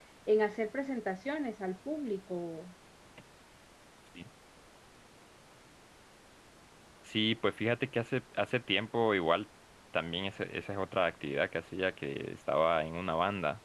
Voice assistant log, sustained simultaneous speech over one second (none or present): none